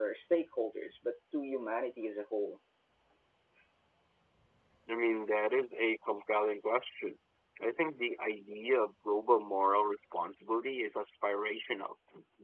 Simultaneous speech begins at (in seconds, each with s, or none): none